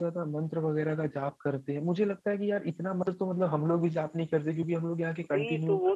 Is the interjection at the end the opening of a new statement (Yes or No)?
Yes